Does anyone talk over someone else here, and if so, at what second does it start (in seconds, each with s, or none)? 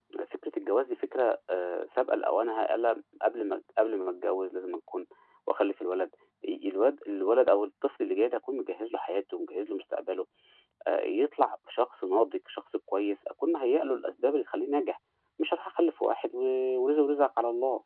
none